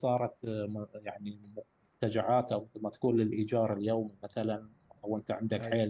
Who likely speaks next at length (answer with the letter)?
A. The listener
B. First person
B